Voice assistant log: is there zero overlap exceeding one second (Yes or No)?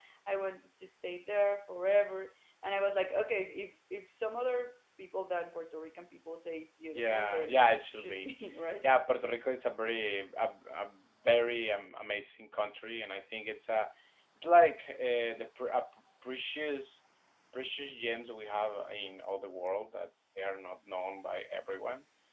No